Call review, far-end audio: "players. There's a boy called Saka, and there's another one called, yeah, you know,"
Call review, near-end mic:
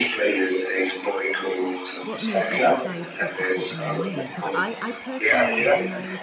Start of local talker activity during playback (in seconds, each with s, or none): 2.0 s